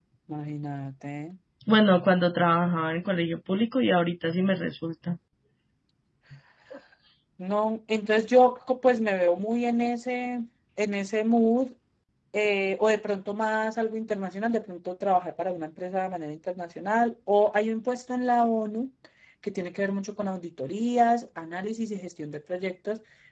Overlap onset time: none

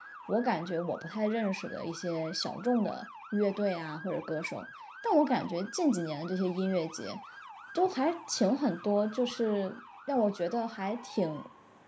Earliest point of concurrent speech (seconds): none

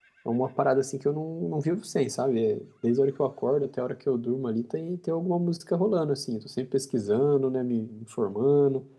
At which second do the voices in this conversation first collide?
none

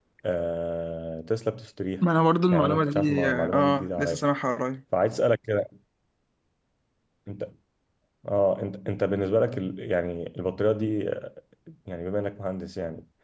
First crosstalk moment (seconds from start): 2.5 s

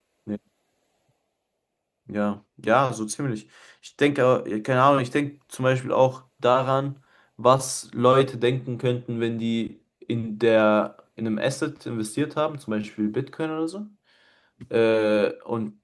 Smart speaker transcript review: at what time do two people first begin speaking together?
none

